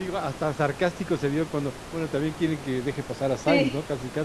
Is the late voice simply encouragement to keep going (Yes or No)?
No